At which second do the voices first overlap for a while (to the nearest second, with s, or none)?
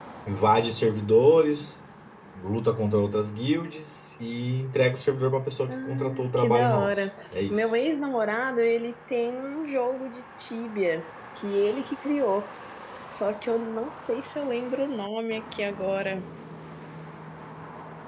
6 s